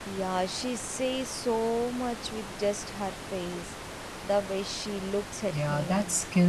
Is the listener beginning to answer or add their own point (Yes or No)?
Yes